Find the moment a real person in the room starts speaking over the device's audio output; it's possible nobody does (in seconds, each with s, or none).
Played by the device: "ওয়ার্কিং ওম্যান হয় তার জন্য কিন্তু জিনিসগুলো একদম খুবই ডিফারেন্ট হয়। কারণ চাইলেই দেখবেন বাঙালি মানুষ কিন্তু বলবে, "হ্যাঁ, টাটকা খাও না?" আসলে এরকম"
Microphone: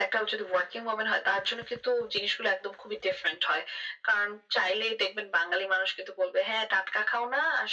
none